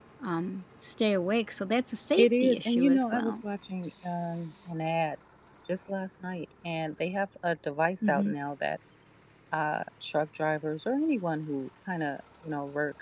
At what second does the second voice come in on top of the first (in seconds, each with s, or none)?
2.1 s